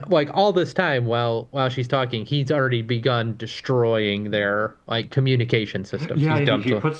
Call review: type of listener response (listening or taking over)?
taking over